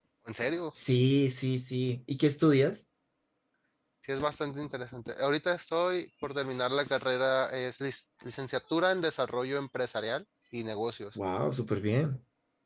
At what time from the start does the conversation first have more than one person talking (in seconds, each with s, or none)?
none